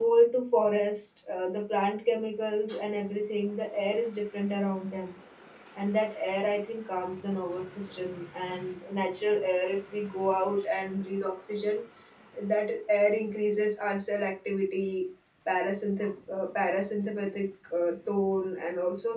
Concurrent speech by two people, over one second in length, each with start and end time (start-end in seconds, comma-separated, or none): none